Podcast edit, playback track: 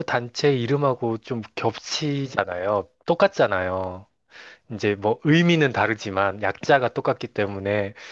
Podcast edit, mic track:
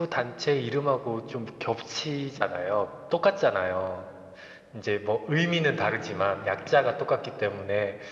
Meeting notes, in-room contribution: none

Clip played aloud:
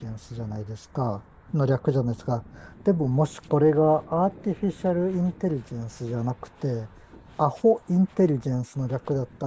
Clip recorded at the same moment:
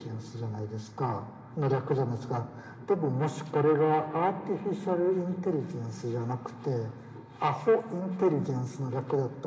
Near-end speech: none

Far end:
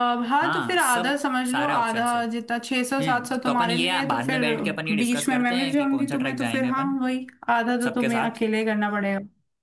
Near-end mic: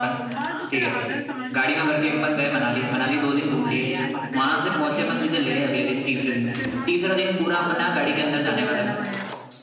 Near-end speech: present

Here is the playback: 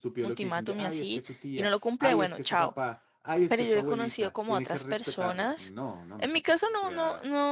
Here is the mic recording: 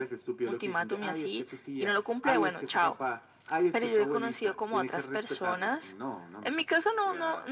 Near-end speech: none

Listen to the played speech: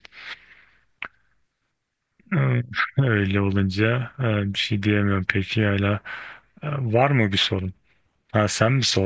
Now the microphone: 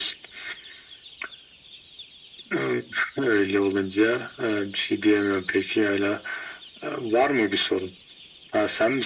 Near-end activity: none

